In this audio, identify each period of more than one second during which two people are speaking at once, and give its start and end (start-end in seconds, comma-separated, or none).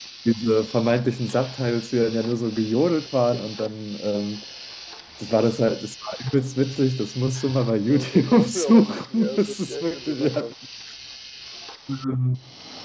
7.9-10.5